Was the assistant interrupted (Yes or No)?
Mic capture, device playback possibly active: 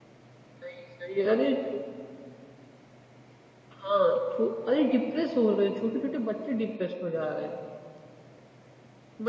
Yes